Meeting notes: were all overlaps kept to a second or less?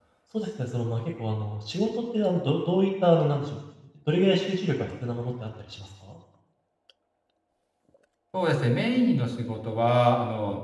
Yes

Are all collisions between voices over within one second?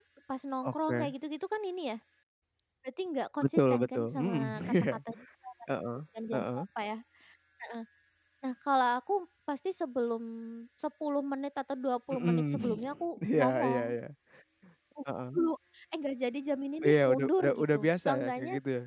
No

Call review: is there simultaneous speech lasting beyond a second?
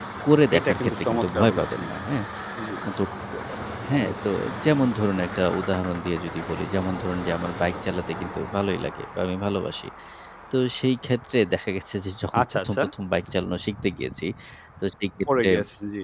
Yes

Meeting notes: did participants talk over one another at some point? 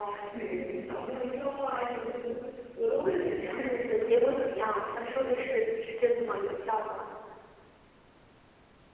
Yes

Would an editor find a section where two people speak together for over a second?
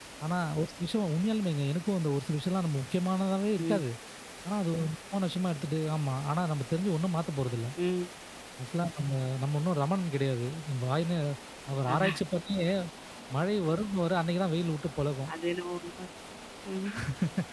No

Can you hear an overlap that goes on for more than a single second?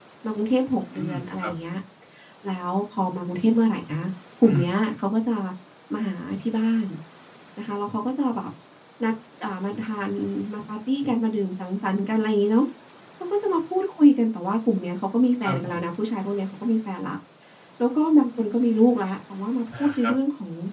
No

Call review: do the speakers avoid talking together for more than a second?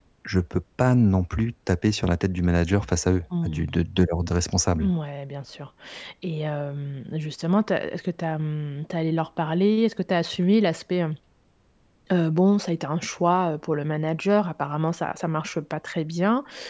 Yes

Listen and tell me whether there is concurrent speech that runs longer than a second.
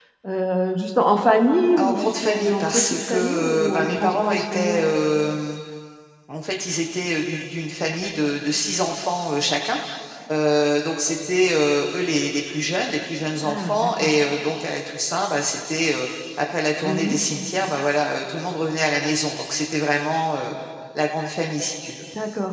Yes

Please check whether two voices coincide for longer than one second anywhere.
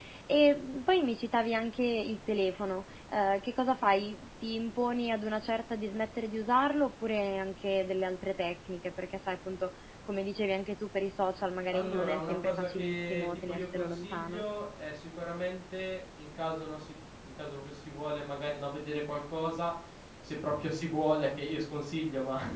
Yes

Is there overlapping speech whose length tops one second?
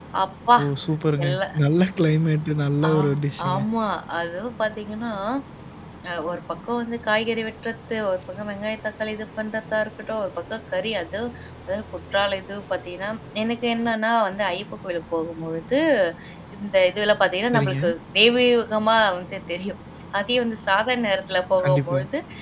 No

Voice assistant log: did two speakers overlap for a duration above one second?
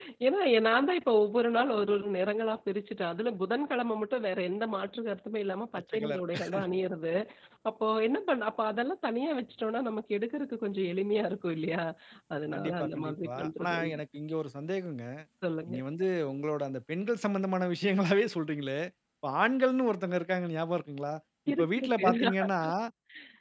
Yes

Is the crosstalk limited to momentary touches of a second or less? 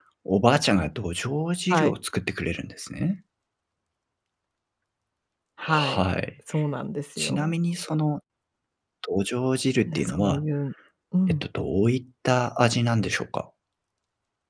Yes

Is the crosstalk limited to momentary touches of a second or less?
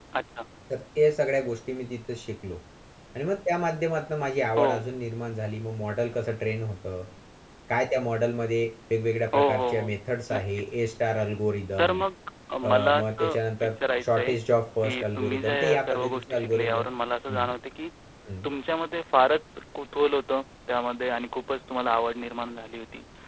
No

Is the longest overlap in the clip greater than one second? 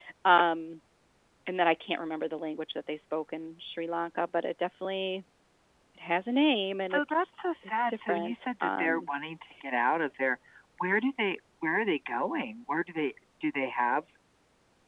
Yes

